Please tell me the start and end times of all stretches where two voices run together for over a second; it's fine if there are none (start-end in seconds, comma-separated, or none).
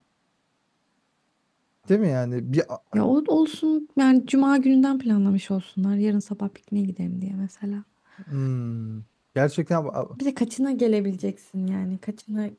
none